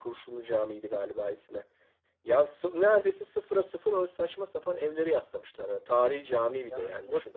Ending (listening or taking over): taking over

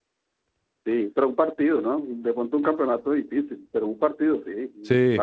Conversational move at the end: taking over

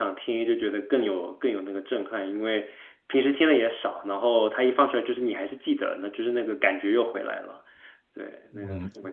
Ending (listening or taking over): taking over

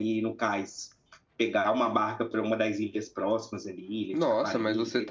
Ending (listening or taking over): taking over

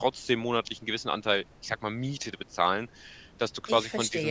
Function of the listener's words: listening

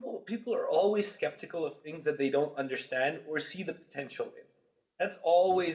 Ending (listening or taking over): listening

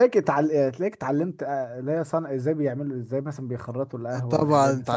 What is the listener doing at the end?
taking over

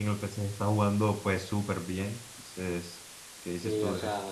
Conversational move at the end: taking over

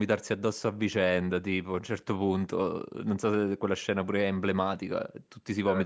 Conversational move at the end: listening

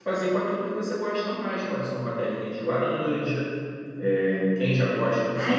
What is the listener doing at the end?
taking over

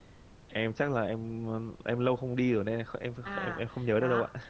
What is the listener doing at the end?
taking over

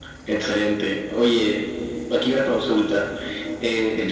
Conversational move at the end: listening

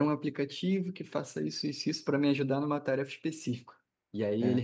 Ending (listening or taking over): listening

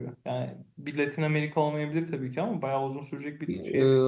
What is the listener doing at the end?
taking over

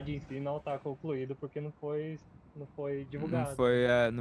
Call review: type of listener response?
taking over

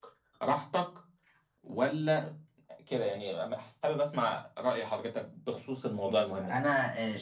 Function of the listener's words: taking over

